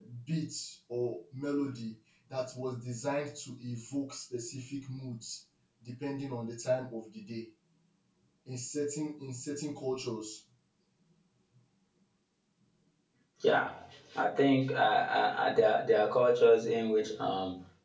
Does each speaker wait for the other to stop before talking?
Yes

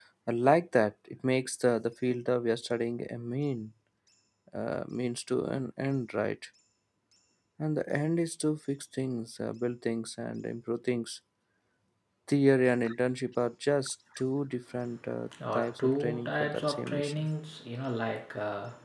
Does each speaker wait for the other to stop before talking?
No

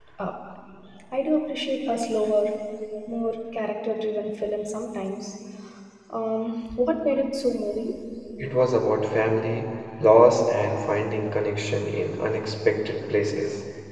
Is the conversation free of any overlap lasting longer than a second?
Yes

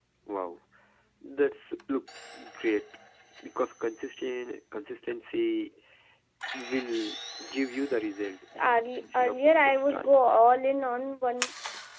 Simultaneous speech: Yes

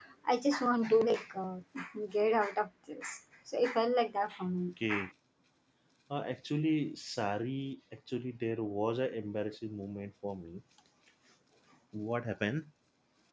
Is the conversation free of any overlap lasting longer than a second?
Yes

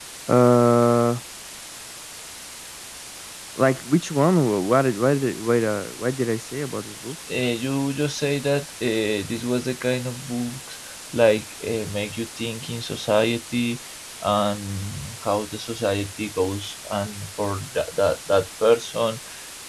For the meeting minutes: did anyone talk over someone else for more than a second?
No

